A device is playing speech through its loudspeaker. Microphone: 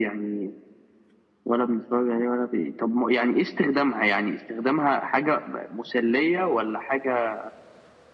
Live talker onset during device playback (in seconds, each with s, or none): none